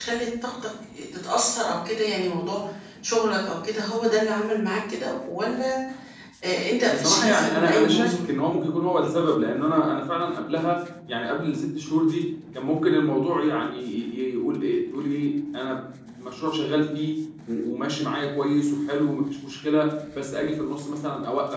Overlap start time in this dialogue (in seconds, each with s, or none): 6.8 s